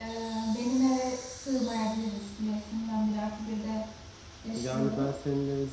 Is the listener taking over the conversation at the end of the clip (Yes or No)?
Yes